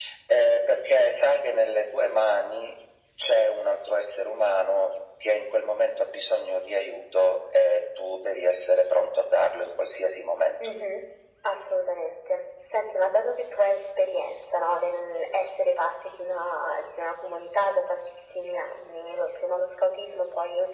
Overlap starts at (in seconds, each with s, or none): none